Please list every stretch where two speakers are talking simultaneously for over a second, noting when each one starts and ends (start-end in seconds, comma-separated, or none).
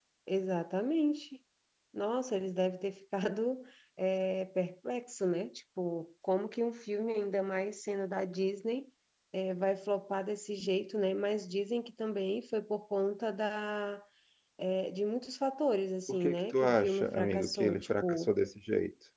16.1-18.3